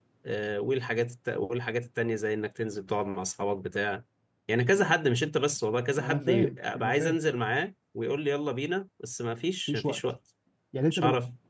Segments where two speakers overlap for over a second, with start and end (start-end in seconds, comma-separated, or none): 6.0-7.2